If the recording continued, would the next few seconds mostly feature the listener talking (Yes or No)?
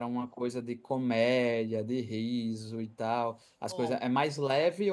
No